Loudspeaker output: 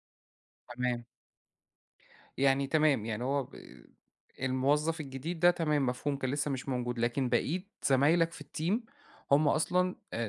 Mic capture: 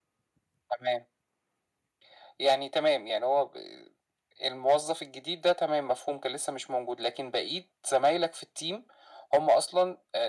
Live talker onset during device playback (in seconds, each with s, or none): none